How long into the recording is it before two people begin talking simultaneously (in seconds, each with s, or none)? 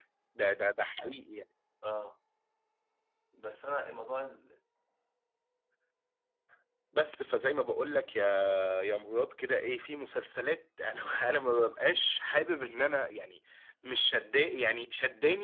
none